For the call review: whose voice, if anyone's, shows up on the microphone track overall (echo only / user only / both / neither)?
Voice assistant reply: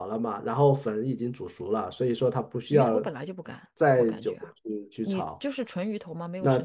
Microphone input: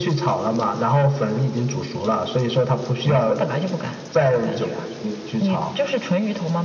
echo only